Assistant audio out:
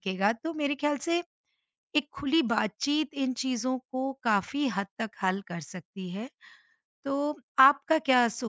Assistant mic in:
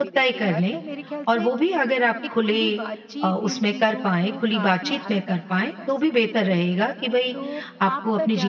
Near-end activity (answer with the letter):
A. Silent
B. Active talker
B